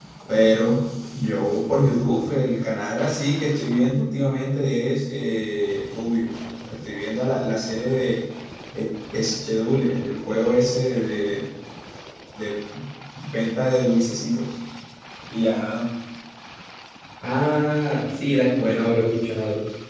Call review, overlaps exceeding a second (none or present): none